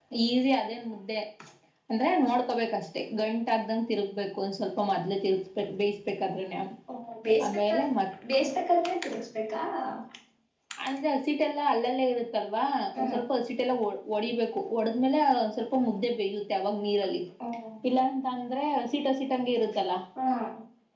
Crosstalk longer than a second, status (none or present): none